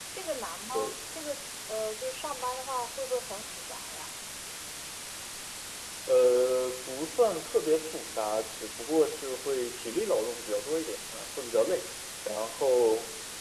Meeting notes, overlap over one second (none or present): none